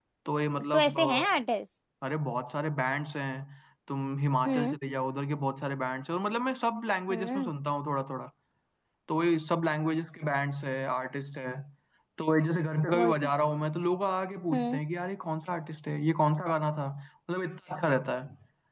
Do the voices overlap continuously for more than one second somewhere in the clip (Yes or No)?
No